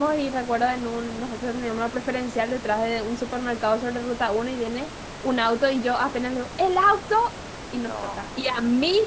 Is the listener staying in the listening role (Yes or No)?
Yes